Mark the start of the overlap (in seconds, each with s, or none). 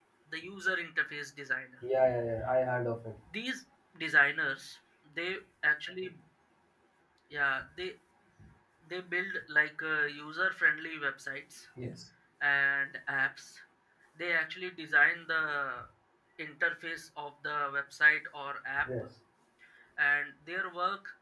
none